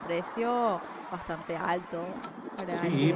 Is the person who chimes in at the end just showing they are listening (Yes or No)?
No